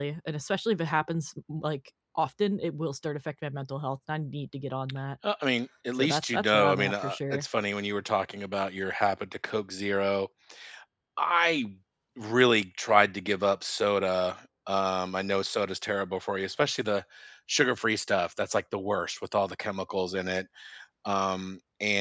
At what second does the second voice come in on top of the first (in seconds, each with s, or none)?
5.9 s